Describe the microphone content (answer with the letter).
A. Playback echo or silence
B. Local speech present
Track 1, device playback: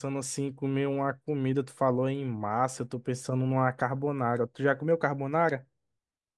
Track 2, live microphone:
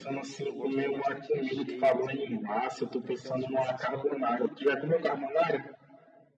B